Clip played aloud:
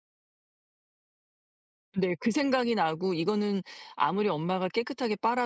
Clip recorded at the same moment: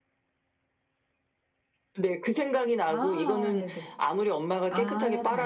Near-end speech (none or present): present